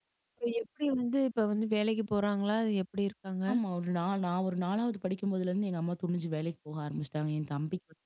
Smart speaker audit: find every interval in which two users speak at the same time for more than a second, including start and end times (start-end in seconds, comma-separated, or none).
none